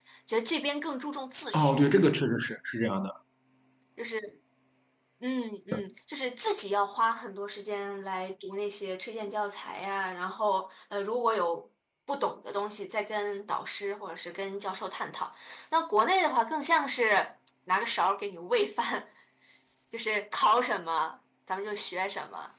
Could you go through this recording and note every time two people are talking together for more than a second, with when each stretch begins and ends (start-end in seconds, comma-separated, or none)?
none